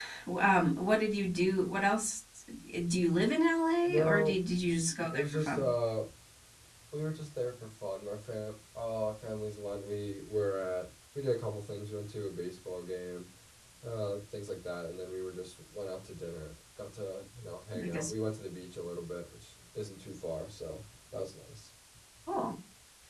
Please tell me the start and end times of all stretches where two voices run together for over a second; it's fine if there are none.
none

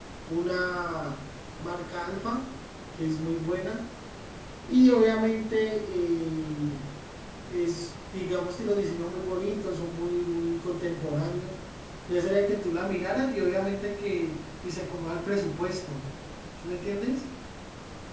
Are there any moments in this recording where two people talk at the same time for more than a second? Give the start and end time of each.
none

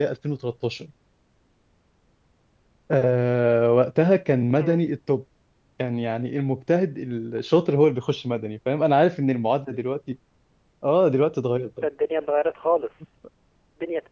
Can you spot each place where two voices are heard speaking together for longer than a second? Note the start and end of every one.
none

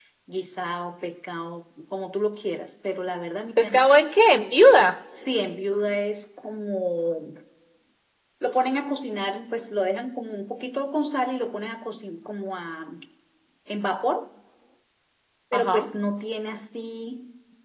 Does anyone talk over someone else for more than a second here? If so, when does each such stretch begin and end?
none

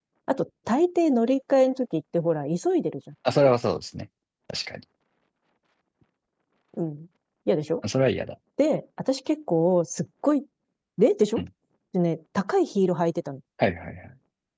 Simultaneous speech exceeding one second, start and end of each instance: none

